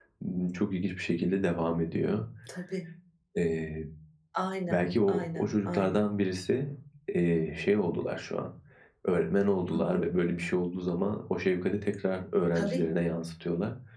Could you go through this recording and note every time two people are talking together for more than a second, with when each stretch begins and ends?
4.7-6.0

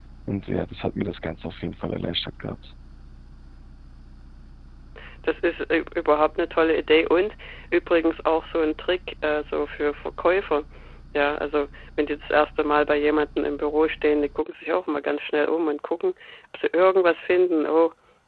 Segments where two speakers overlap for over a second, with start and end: none

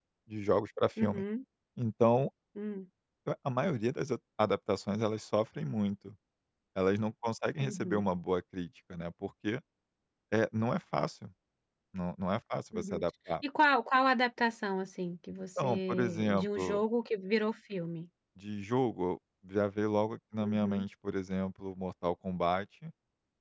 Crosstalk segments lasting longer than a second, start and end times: 15.6-16.8

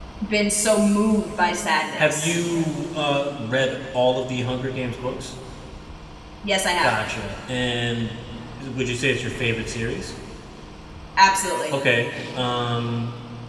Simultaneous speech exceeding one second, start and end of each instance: none

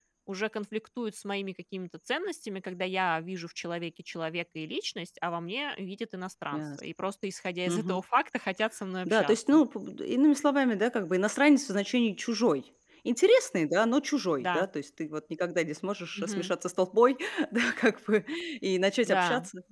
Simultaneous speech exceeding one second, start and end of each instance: none

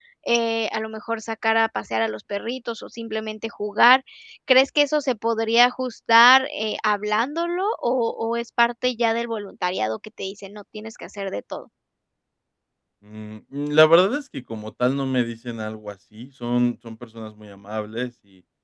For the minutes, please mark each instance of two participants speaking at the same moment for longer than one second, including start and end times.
none

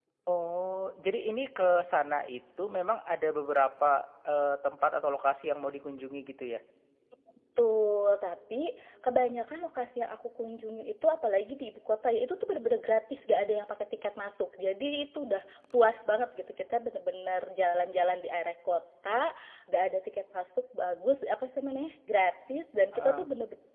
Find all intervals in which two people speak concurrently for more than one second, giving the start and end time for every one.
none

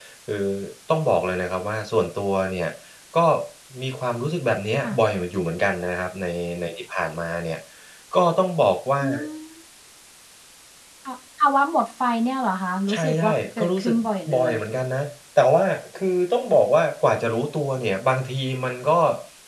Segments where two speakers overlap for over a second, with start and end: 12.9-14.5

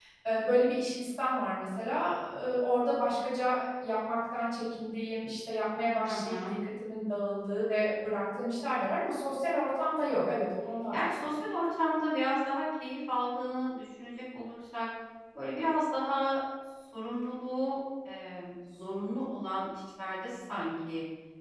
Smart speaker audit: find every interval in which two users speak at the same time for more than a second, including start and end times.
none

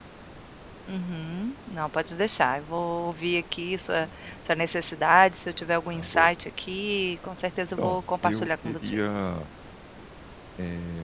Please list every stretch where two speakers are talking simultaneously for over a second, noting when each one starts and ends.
7.8-9.0

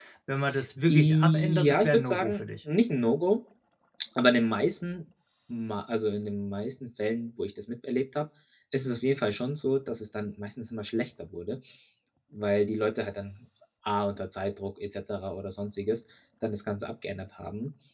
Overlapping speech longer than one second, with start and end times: 0.9-2.4

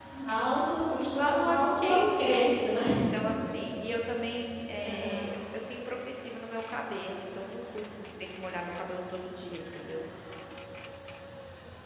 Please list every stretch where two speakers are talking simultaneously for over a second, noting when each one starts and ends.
0.9-2.4

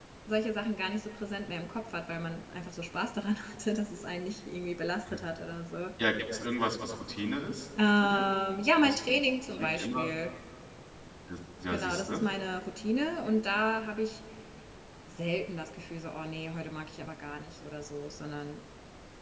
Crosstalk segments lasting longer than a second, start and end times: none

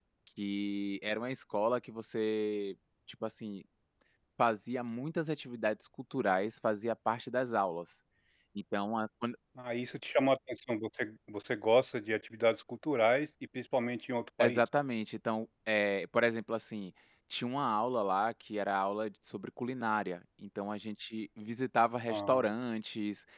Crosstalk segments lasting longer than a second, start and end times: none

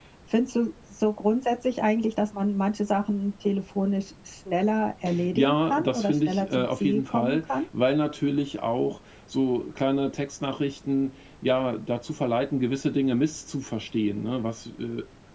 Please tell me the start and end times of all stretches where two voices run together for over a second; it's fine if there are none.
5.3-7.4

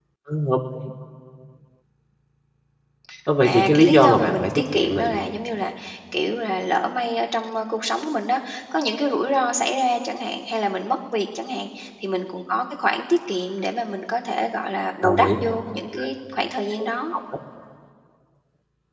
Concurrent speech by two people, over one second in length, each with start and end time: 3.4-5.2

